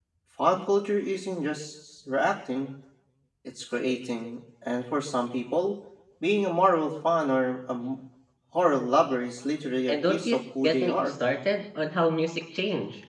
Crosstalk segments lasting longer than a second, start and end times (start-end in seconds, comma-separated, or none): 9.9-11.1